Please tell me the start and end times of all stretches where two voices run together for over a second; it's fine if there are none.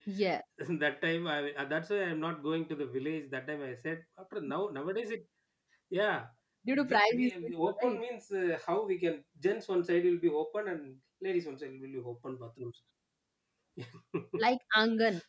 6.7-8.0

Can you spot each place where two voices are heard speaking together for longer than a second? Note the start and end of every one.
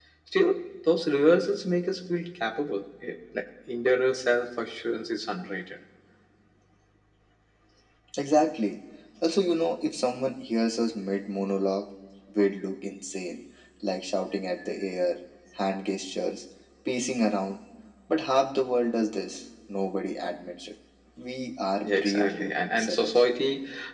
21.9-23.2

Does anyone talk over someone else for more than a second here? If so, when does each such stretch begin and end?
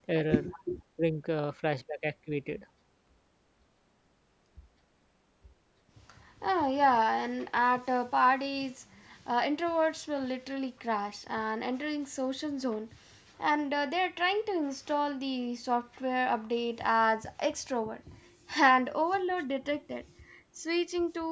none

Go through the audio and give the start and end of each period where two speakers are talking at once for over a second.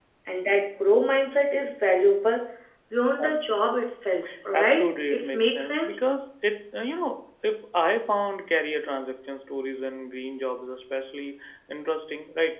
4.5-6.0

